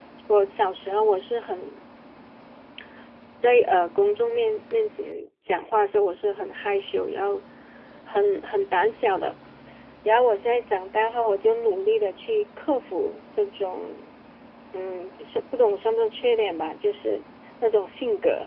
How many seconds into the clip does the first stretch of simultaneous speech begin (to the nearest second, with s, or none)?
none